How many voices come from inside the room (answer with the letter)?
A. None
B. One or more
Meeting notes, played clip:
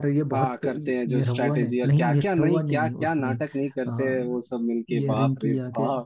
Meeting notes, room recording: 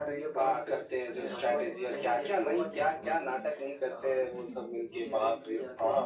B